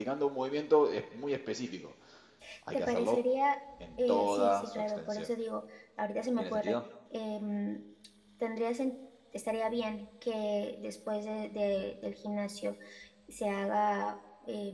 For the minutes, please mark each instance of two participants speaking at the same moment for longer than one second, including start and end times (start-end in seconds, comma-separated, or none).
4.0-5.3